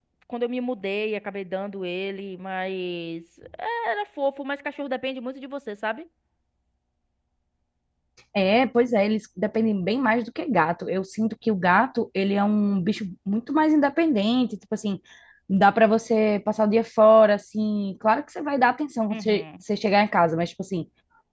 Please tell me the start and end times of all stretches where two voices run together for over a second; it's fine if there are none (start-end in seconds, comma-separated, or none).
none